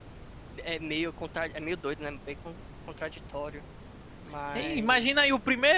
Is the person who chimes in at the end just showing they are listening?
No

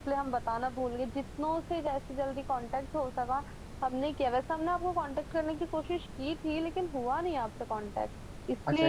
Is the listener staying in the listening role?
No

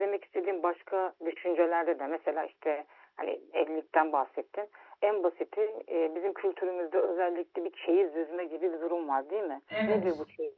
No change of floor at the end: Yes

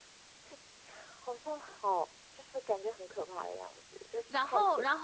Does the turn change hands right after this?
Yes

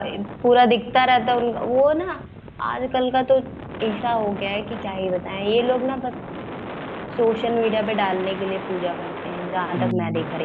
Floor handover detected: Yes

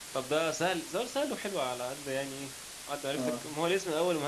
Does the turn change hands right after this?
No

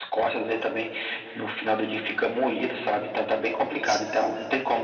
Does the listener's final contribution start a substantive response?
No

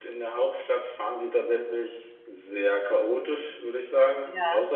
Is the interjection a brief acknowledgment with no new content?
Yes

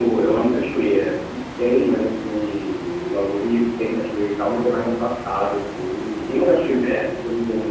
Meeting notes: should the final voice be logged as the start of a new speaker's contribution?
No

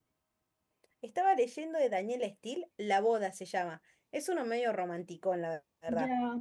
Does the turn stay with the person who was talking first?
No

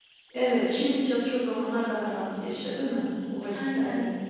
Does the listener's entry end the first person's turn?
Yes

